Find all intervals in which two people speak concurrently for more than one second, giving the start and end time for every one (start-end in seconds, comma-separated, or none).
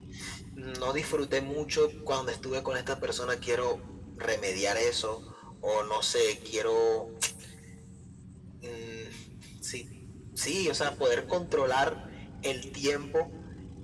none